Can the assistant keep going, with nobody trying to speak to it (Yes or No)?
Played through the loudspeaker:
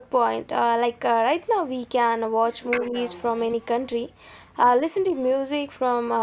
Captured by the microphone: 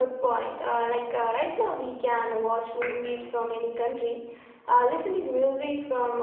Yes